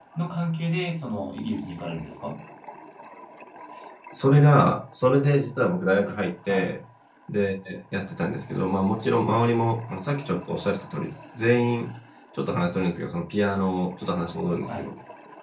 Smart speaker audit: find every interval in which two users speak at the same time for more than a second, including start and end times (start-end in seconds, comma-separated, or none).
none